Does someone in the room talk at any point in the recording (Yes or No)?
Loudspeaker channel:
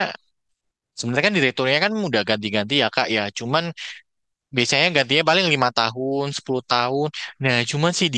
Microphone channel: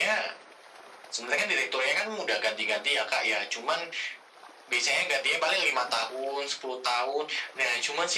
No